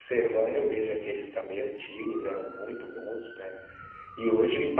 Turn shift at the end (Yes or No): No